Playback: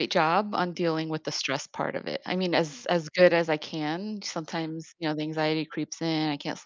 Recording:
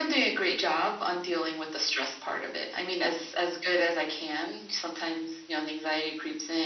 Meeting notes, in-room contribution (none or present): none